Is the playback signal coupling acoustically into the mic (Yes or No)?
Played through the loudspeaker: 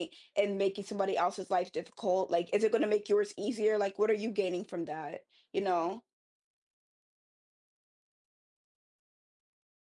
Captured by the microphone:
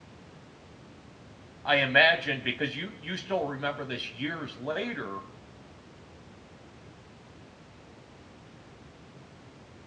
No